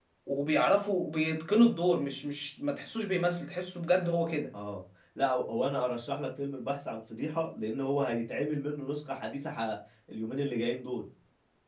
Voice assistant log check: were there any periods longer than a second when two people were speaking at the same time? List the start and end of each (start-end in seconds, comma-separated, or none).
none